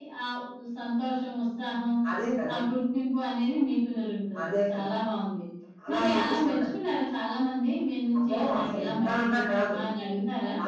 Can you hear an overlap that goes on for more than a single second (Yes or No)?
Yes